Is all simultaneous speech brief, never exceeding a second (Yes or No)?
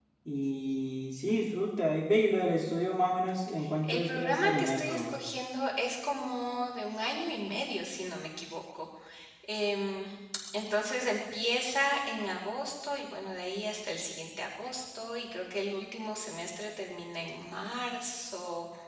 No